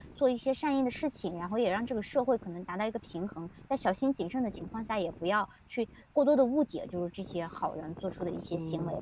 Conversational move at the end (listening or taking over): taking over